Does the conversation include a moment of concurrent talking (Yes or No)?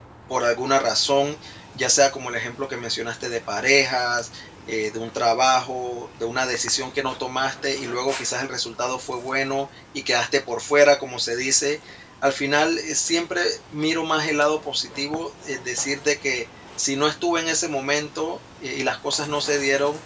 No